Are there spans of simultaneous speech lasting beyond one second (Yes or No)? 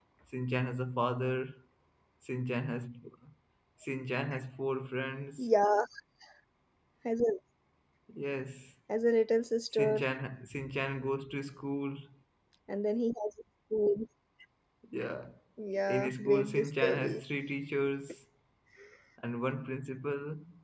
Yes